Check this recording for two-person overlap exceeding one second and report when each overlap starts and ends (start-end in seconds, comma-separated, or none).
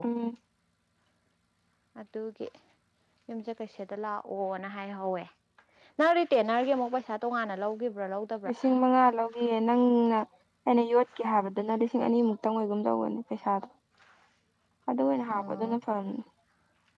none